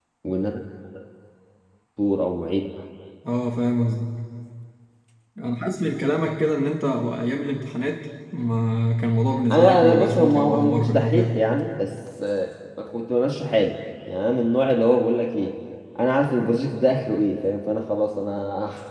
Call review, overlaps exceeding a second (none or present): present